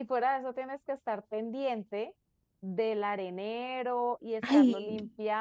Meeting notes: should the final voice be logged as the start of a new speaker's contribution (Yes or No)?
No